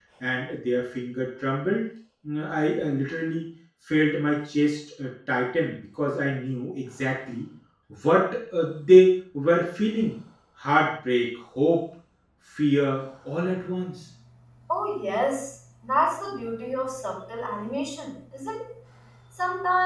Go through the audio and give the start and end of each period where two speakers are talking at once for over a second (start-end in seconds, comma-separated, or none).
none